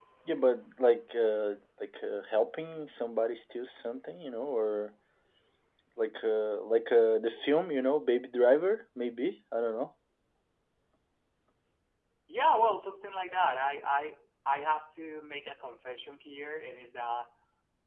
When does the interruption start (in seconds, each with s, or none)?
none